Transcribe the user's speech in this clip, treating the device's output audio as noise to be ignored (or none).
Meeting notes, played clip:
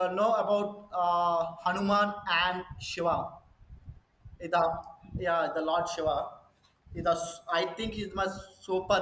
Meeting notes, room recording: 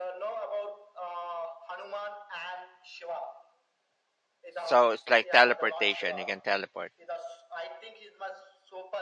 So it's like teleportation. He can teleport.